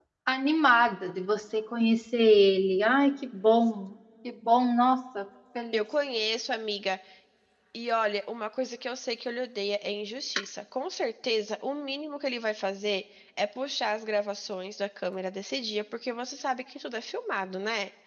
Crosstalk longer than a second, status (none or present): none